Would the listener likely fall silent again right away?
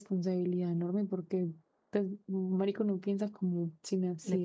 No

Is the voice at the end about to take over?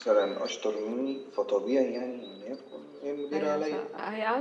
Yes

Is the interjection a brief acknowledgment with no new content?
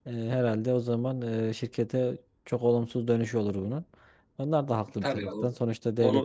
No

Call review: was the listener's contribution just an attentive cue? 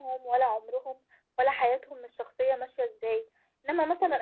Yes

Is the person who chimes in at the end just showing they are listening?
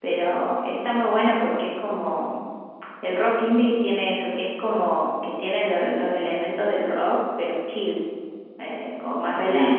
No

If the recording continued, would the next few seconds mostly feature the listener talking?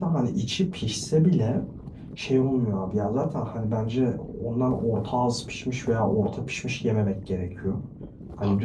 No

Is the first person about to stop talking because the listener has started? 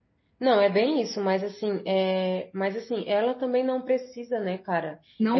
No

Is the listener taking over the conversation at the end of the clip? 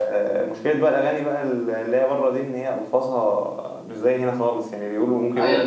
Yes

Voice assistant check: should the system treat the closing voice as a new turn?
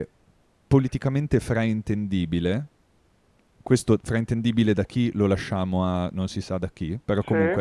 No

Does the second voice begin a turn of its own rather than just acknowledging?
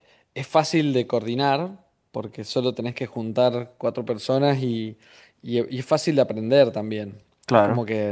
No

